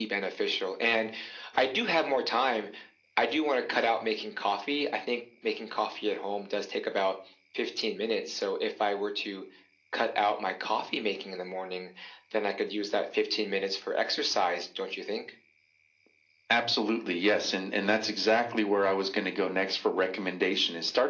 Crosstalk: none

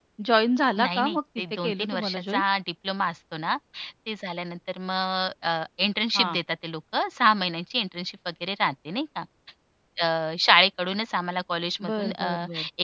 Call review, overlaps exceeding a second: present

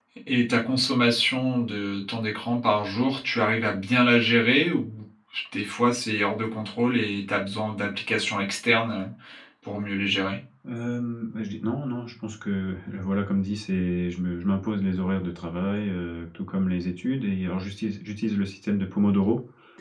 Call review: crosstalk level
none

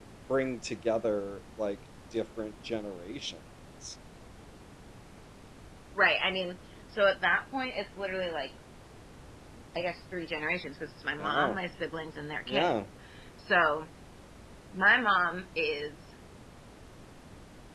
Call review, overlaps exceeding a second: none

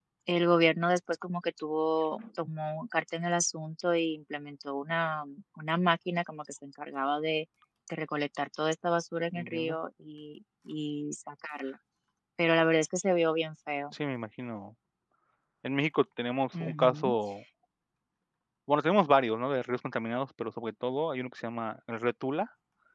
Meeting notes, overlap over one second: none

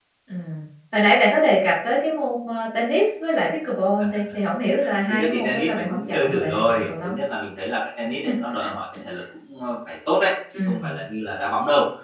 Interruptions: present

